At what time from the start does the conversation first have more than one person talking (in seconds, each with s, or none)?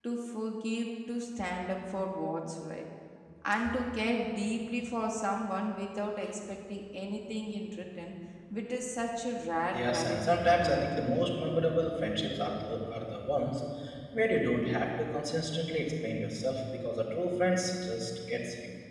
9.5 s